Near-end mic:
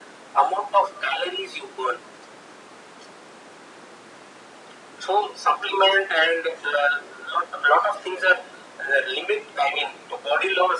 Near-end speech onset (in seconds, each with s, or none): none